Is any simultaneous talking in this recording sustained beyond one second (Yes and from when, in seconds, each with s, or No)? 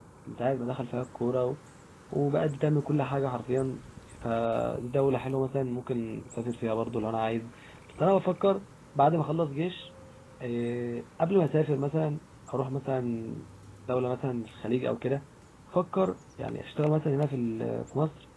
No